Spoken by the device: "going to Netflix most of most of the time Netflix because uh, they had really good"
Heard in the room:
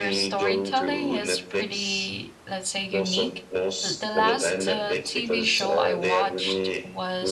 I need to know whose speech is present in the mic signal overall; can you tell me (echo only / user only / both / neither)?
both